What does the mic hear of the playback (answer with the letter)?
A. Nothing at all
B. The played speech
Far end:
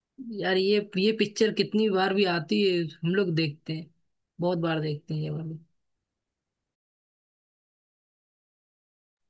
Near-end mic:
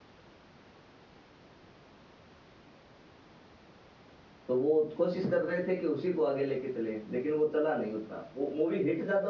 A